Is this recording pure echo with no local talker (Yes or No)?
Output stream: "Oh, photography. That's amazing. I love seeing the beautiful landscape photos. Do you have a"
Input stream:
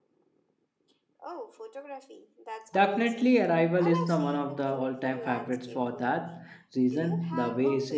No